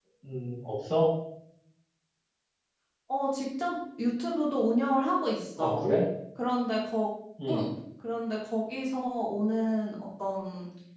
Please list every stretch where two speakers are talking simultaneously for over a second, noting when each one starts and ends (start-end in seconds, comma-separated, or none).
none